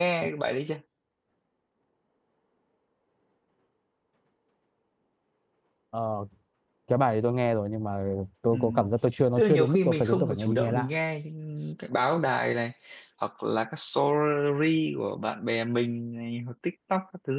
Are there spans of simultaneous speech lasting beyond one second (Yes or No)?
Yes